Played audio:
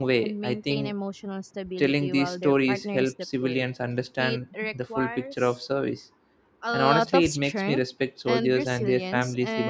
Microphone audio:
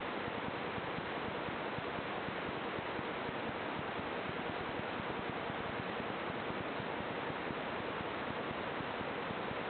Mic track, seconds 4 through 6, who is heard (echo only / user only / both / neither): neither